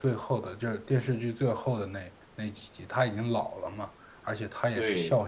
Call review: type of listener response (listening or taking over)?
listening